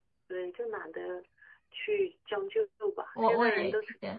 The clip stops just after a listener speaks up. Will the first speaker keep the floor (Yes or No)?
No